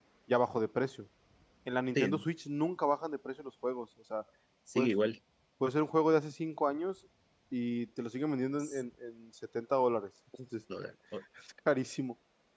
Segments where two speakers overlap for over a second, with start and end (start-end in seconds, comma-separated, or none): none